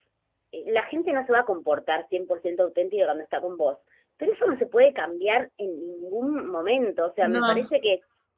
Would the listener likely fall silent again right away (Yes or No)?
Yes